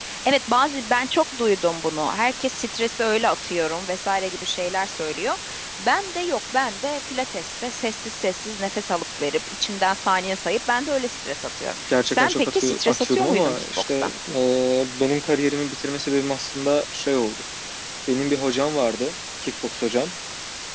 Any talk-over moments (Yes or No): Yes